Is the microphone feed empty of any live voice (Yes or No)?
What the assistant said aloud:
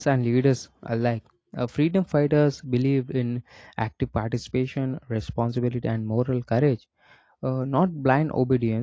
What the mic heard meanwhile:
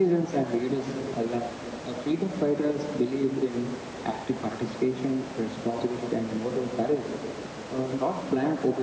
Yes